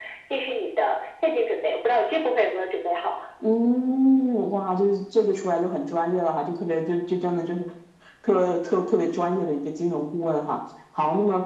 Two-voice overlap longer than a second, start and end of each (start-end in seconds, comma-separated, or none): none